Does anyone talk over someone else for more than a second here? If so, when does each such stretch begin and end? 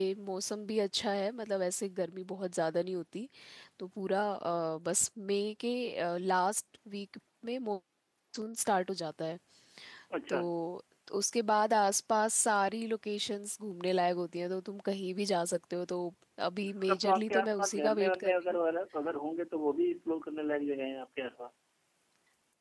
16.9-18.6

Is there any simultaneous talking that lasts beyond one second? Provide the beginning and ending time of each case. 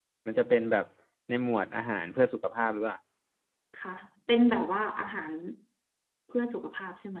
none

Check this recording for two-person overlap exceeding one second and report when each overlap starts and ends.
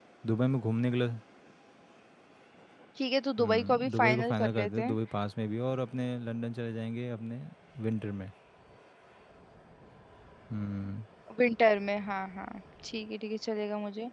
3.4-5.0

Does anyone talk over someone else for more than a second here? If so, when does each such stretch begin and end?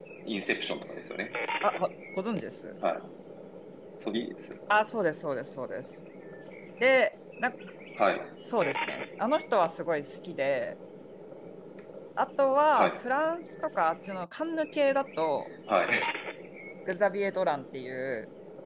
none

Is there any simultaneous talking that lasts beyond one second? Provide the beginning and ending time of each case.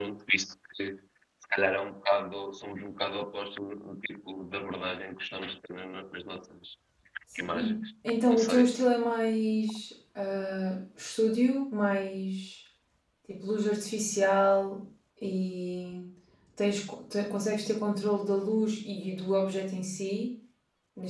none

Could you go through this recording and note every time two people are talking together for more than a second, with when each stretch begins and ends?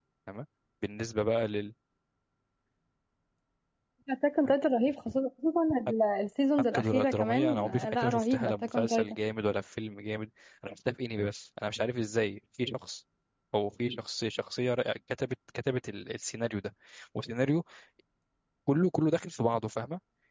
6.7-9.2

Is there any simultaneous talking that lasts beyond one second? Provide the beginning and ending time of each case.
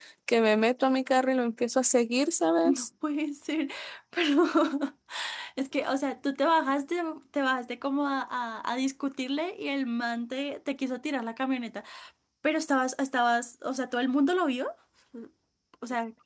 none

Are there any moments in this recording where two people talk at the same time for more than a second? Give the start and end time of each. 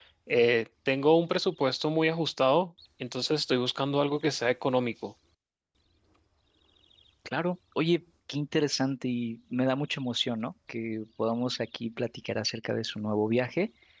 none

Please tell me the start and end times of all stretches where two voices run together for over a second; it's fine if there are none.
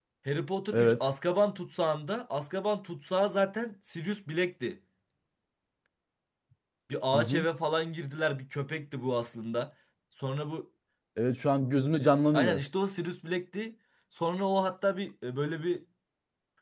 none

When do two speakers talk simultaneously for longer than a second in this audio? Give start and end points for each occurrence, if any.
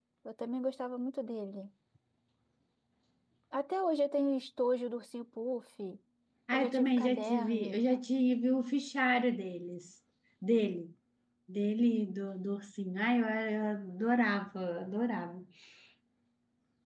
6.5-7.8

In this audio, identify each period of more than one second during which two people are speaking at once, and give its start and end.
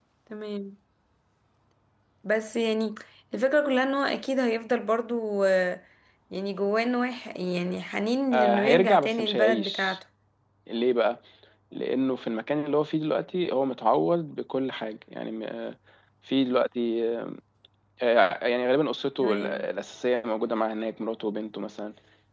8.3-10.0

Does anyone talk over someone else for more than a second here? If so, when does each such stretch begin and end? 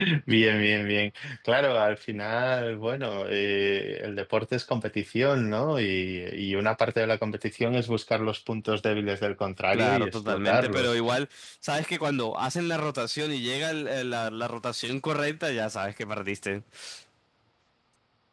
9.7-10.9

